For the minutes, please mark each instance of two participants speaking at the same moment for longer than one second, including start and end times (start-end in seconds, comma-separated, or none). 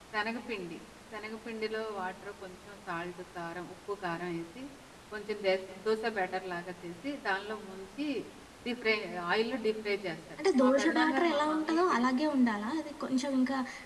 10.6-12.1